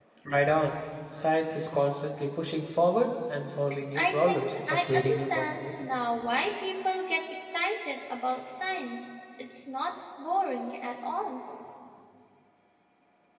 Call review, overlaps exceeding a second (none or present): present